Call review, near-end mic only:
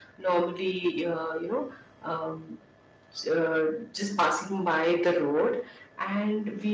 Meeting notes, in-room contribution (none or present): none